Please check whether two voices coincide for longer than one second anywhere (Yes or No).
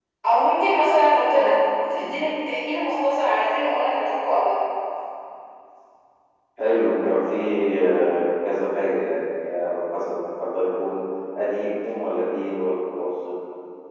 No